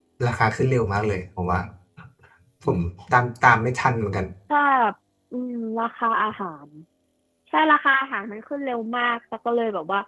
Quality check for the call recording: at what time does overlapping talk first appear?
none

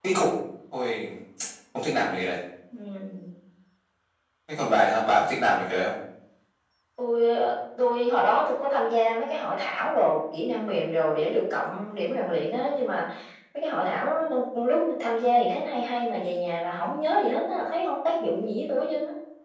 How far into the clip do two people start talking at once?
none

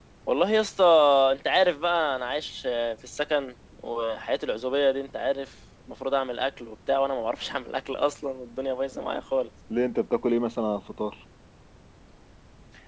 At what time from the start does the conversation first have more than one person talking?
none

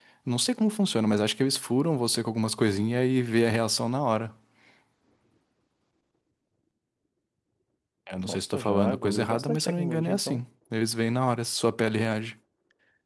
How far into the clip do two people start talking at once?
8.2 s

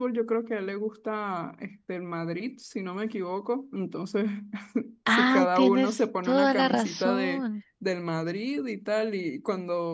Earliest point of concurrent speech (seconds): 5.1 s

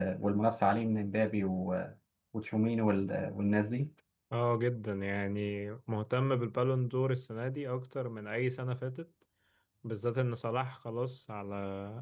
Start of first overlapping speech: none

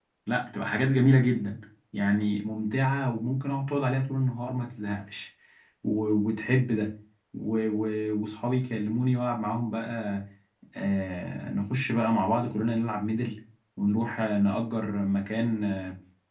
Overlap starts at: none

